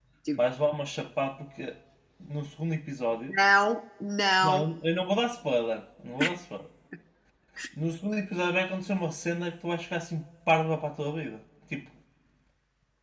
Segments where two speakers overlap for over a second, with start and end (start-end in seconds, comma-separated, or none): none